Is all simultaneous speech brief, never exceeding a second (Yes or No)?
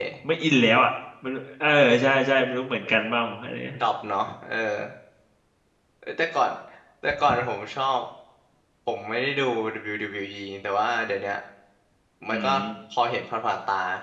Yes